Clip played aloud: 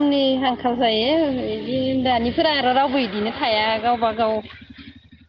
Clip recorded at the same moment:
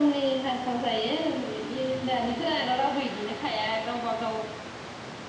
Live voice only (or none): none